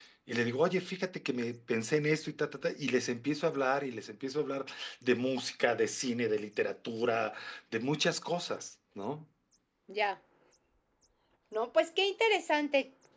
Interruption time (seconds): none

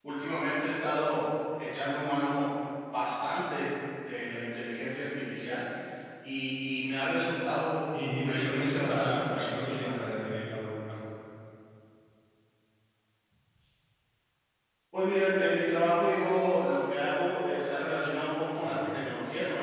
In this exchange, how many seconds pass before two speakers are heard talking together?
8.1 s

